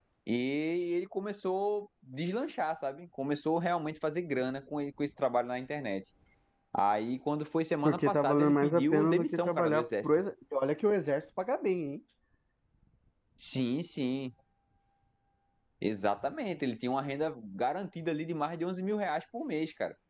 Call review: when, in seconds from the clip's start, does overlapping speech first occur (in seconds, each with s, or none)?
7.8 s